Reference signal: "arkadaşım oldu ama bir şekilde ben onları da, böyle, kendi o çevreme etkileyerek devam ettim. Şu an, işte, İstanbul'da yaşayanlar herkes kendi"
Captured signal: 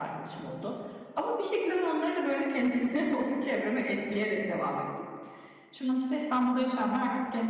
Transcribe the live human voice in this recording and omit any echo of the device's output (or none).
none